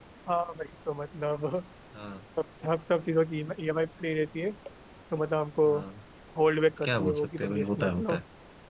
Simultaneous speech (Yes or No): Yes